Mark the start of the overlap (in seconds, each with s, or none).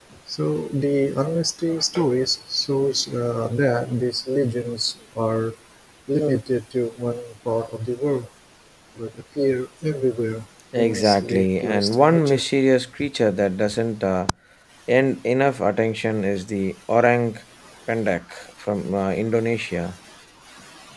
10.7 s